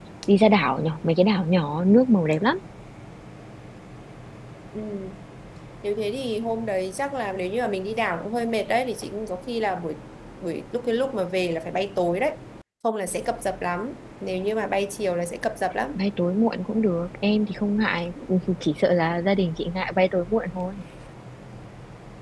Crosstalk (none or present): none